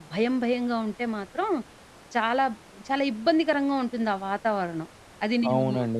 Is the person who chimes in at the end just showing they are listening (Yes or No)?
No